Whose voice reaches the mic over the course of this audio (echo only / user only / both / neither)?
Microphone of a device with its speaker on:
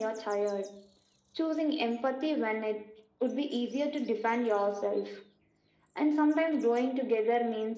echo only